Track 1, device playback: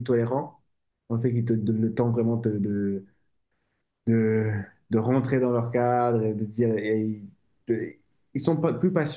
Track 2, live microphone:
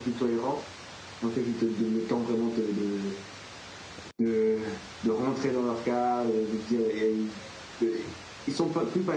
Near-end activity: none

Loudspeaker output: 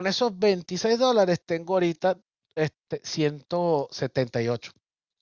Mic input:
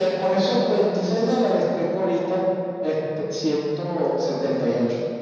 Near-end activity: none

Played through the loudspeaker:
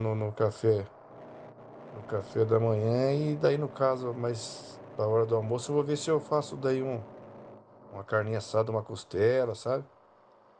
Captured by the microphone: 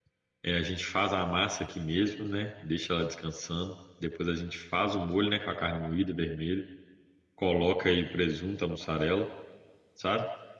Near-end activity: present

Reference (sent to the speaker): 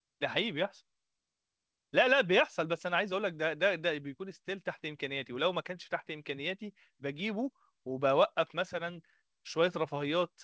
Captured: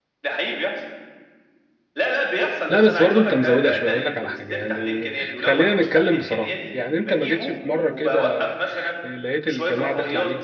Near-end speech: present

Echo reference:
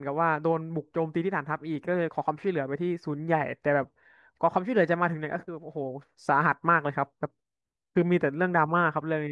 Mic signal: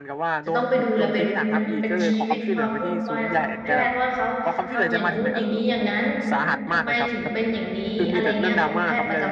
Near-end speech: present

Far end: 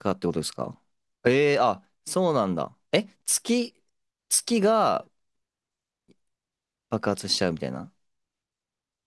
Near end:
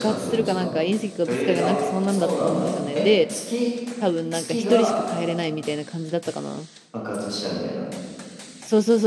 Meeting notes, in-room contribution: present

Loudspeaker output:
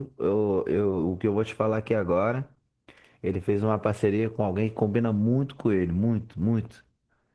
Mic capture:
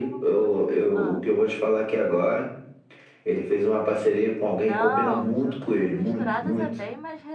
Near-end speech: present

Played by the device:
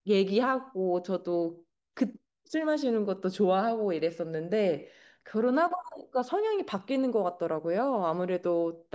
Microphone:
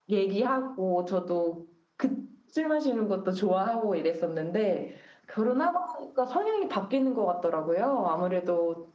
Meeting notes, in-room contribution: none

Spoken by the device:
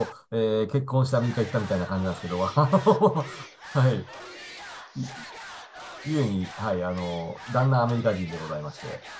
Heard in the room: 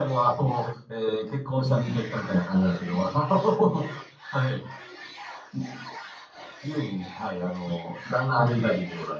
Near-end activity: none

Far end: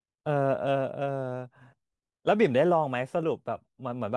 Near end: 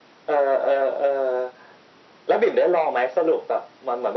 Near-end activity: none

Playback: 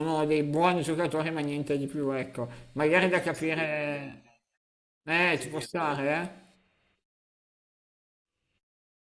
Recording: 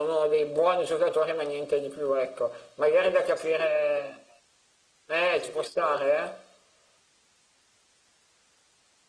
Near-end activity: none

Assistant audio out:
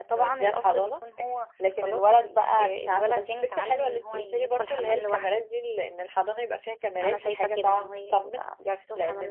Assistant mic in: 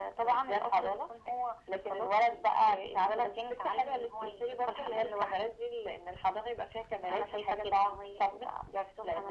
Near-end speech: none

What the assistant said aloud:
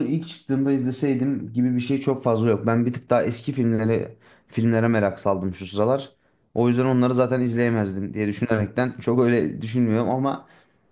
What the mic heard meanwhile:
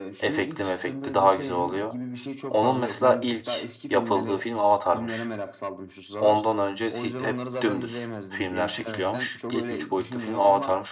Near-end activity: present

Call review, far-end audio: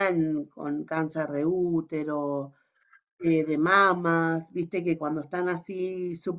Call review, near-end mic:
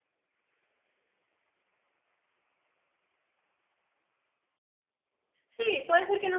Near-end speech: present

